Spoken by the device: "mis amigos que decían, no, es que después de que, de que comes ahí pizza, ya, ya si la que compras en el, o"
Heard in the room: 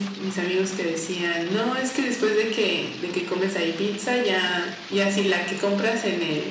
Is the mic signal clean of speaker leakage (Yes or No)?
No